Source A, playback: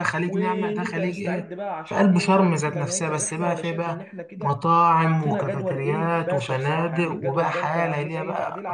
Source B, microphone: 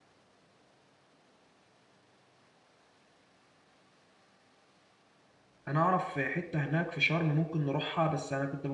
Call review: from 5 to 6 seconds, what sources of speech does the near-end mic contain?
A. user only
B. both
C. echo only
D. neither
A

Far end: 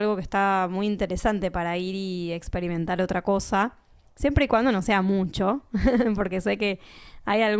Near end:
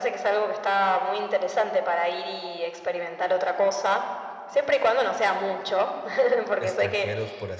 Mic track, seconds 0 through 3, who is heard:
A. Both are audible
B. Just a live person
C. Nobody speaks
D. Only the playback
D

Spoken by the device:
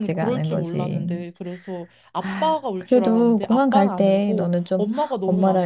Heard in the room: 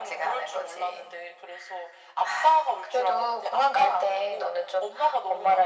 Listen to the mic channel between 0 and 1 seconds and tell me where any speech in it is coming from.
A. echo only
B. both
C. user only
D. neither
A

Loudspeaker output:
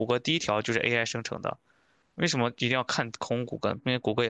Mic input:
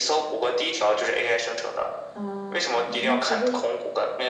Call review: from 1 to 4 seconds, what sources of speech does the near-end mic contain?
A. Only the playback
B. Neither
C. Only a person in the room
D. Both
D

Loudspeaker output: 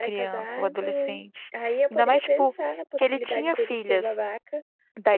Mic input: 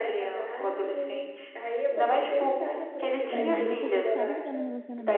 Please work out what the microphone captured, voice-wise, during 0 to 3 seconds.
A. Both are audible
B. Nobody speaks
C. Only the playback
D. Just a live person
C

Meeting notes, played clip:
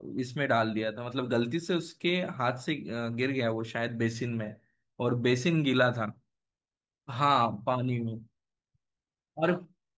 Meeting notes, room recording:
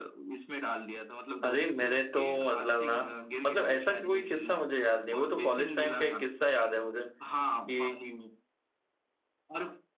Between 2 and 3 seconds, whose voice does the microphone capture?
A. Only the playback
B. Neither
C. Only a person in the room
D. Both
D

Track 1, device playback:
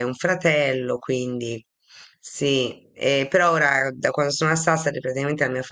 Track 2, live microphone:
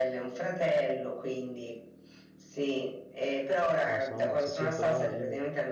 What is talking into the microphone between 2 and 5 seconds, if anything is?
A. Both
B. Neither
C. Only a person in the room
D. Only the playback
A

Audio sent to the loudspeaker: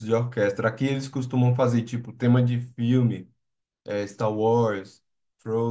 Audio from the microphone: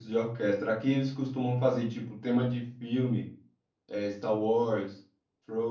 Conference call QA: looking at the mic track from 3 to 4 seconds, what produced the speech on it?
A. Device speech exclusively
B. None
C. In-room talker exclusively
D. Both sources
A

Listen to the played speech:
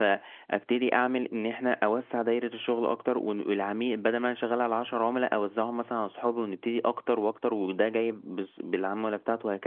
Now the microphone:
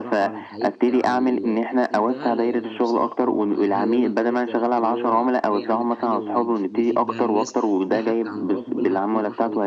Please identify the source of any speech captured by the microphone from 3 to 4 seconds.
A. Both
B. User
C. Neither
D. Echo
A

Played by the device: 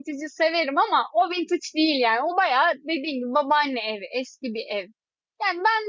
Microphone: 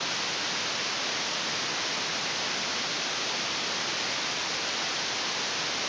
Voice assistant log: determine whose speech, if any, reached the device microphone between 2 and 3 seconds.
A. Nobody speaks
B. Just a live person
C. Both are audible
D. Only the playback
A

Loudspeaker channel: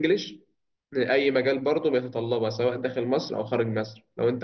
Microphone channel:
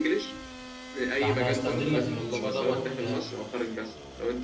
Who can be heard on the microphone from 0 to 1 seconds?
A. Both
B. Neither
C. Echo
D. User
C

